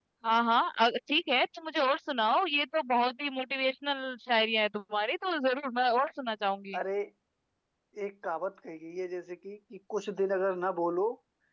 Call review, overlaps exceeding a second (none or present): none